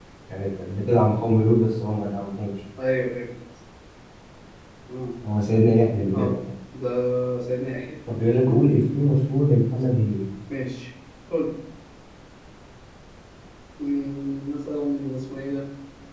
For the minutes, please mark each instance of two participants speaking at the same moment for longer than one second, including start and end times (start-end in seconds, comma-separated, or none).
none